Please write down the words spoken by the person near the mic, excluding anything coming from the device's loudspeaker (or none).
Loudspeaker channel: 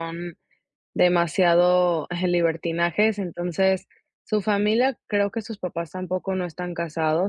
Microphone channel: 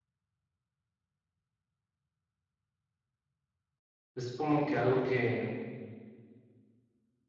Es como que algo que